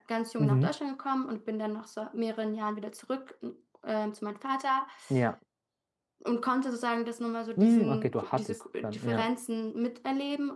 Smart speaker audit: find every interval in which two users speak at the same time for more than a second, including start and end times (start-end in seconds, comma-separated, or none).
7.6-9.3